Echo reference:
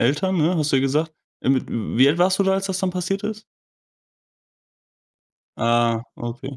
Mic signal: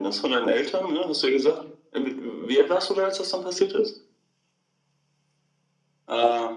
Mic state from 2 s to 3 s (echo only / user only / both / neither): echo only